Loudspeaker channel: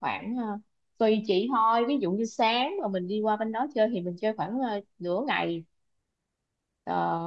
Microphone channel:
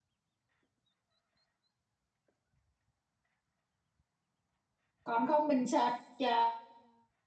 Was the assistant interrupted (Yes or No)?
Yes